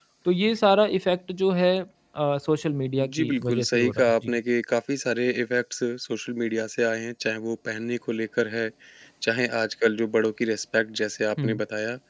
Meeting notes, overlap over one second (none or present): present